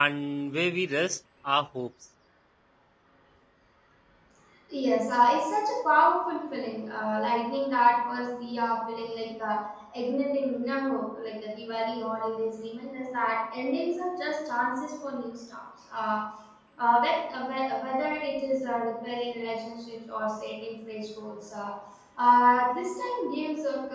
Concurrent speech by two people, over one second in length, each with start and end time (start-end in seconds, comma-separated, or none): none